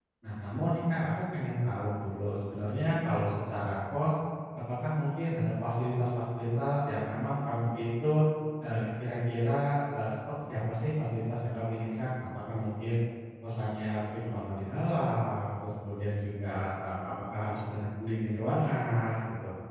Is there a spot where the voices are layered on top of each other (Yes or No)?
No